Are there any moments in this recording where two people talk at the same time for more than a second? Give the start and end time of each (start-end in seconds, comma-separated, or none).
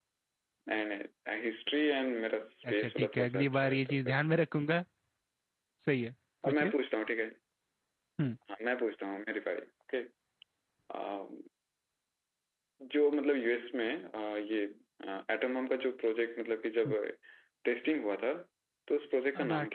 2.7-4.2